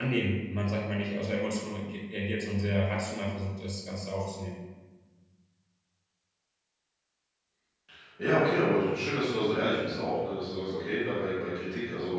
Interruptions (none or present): none